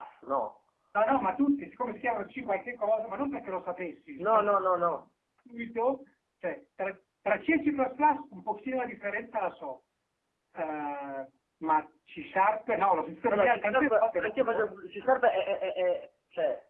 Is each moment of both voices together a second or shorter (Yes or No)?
No